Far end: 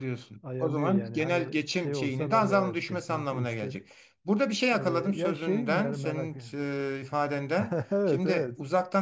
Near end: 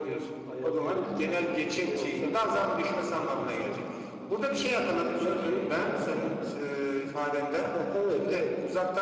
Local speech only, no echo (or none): none